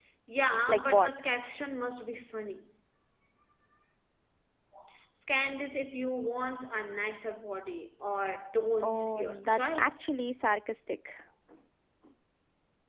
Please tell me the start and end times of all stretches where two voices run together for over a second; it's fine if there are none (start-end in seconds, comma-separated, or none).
8.8-10.0